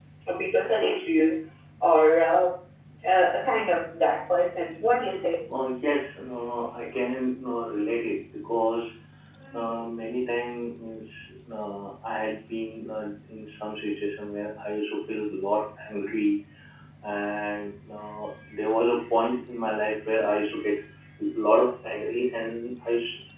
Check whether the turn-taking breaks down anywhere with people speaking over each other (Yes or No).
No